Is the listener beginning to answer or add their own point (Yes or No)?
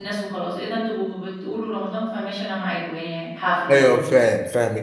Yes